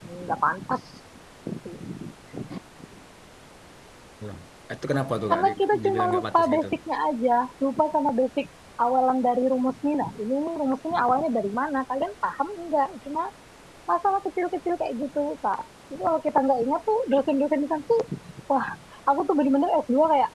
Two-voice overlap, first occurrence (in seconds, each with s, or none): 5.3 s